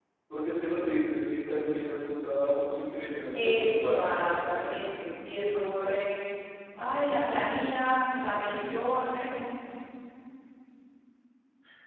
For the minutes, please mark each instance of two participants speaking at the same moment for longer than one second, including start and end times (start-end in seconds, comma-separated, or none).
3.3-4.7